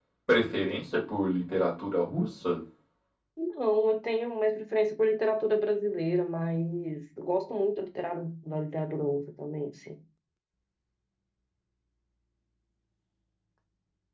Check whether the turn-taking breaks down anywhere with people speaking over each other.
No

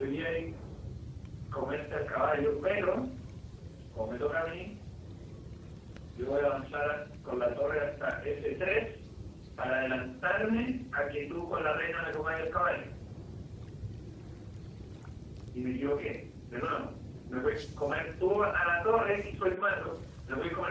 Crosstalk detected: No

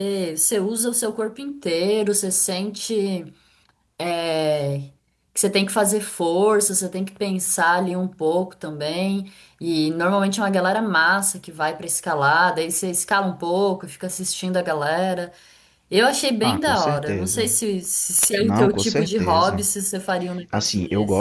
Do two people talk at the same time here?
Yes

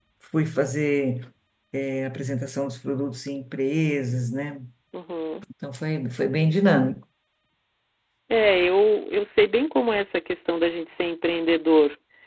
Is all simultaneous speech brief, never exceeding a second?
Yes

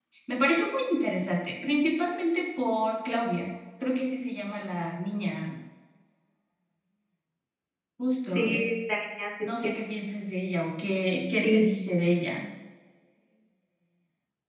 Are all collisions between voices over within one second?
Yes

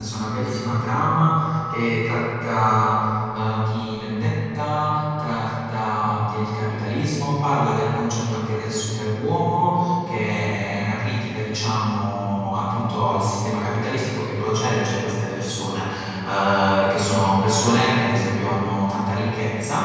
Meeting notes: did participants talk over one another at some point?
No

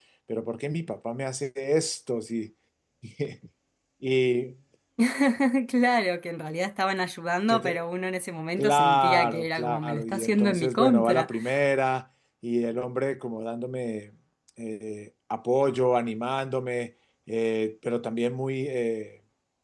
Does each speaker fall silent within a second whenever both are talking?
No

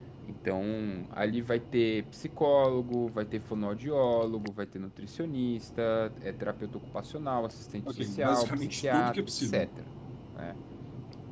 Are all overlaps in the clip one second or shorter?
No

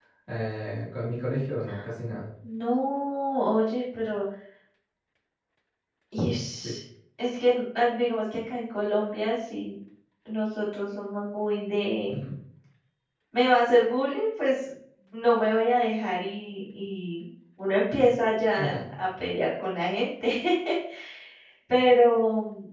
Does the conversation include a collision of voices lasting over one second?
No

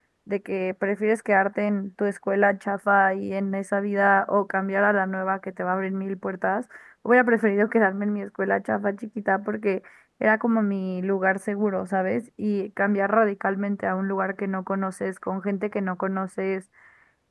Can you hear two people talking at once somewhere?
No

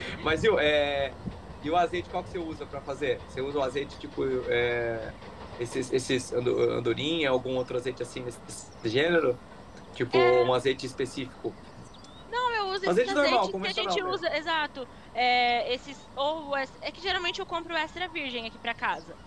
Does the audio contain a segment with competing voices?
Yes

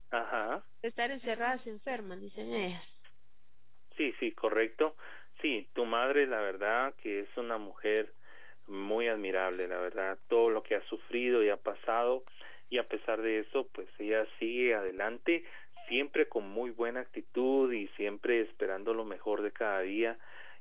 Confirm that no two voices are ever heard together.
Yes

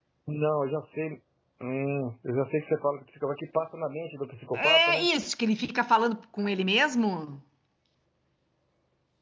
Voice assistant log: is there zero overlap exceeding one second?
Yes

